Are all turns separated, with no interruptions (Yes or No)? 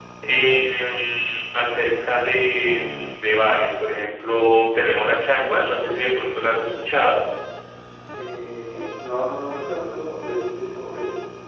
Yes